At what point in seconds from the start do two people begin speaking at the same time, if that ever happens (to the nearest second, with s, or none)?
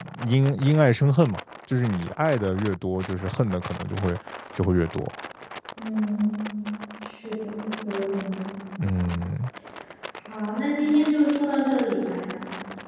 none